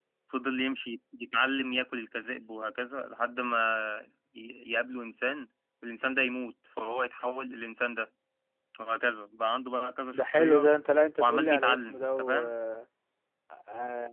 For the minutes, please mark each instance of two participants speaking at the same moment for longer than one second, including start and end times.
11.2-12.5

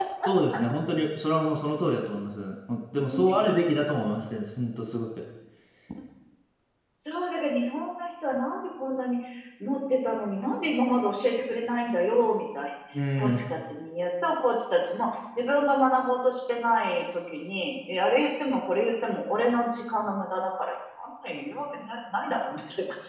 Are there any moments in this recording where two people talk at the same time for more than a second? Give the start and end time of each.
none

